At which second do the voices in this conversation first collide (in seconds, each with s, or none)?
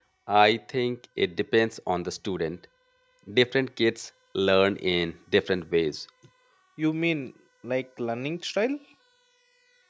none